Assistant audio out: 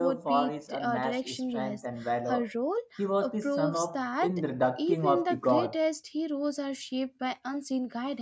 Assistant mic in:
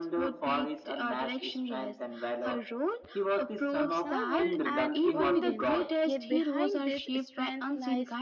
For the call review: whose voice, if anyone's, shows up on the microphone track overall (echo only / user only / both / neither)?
both